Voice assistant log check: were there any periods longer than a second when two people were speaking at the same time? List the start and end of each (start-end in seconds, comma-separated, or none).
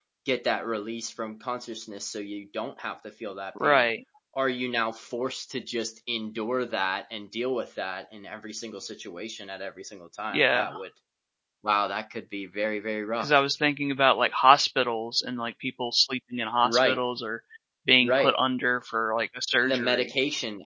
none